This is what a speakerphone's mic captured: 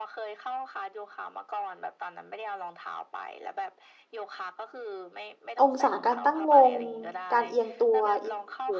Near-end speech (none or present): present